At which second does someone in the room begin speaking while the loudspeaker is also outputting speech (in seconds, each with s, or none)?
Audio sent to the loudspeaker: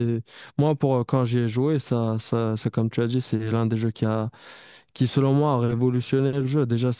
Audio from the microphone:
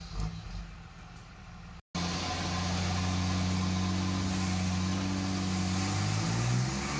none